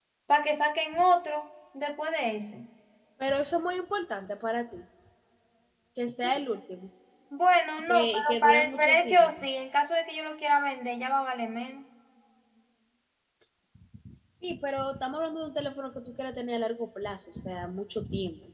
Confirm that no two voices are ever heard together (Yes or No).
No